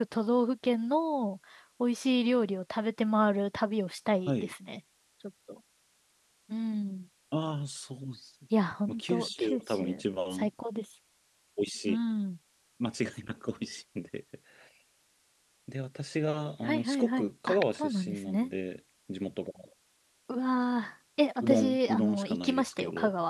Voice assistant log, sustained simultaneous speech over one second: present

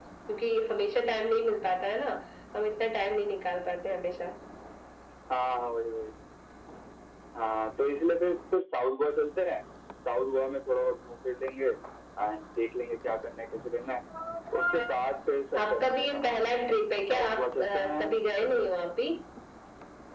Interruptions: present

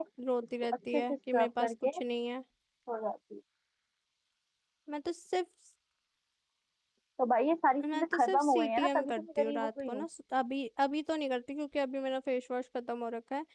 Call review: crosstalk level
present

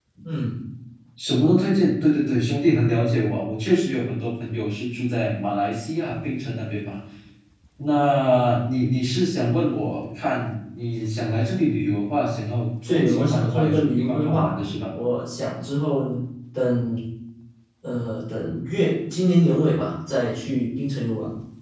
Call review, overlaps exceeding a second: present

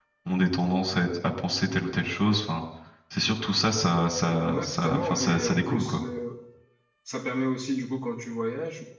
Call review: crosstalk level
present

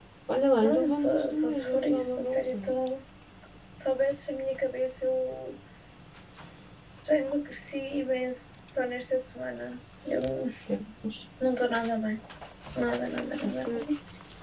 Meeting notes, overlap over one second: present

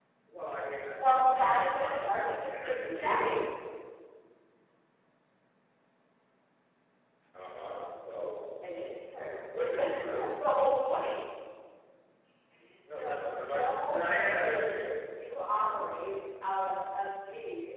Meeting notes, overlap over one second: present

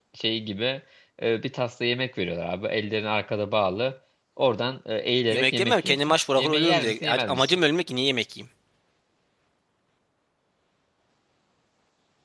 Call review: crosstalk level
present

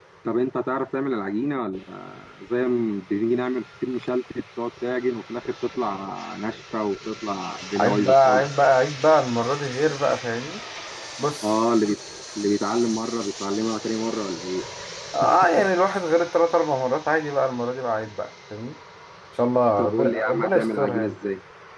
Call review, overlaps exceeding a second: present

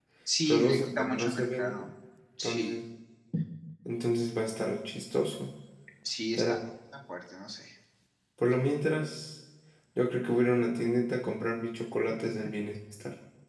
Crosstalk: present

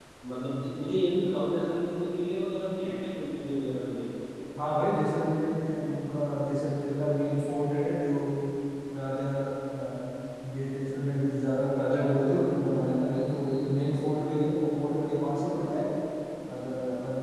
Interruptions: none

